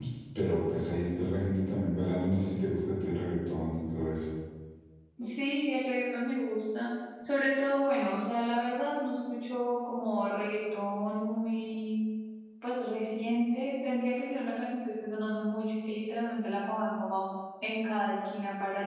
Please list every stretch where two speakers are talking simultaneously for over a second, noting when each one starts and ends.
none

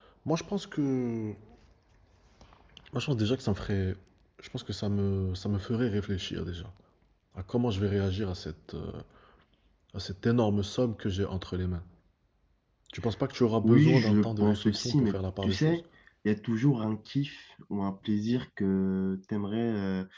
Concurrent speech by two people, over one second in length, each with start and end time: 13.6-15.8

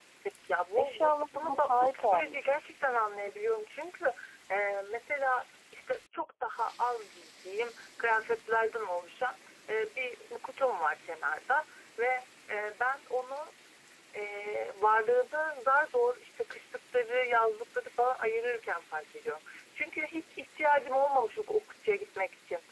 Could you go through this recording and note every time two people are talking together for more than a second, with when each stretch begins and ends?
0.8-2.6

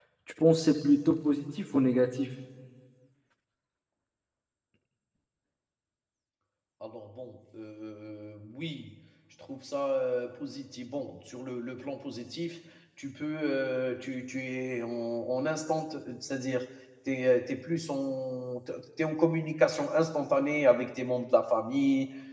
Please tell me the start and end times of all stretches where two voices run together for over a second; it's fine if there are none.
none

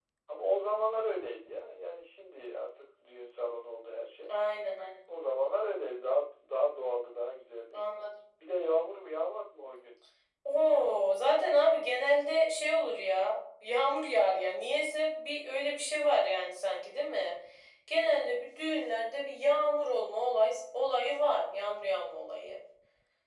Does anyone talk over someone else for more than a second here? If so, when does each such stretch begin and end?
none

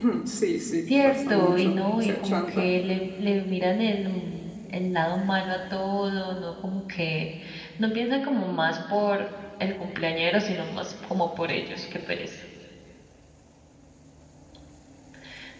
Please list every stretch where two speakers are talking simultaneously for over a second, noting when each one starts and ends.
0.9-2.8

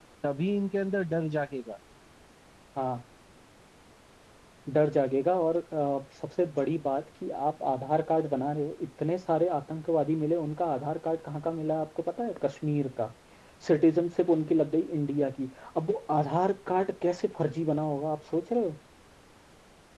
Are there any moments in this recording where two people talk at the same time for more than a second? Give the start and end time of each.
none

